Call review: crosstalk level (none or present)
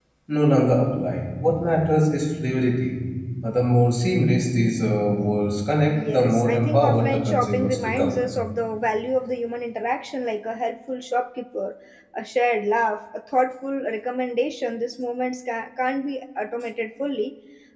present